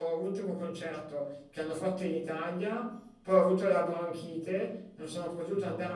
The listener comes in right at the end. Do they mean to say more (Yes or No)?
No